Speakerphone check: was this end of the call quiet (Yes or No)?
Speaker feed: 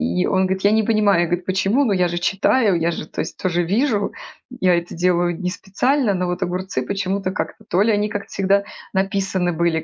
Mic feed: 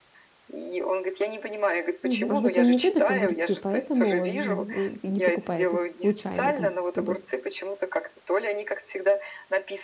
No